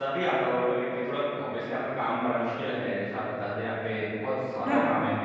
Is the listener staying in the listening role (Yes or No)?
Yes